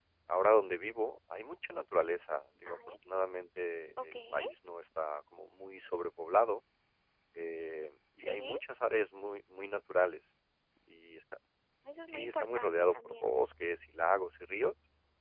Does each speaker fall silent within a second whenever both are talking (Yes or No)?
No